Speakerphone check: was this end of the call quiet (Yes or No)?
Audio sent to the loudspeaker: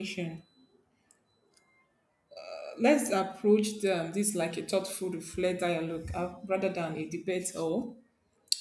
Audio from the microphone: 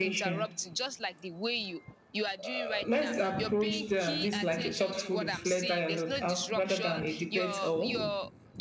No